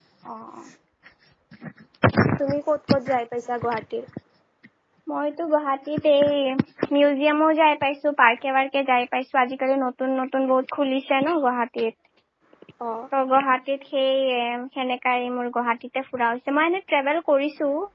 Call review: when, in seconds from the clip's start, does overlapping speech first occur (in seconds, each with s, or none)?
none